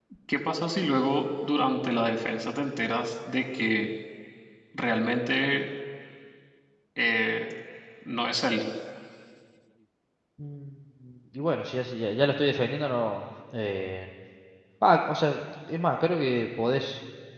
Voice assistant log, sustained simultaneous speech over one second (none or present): none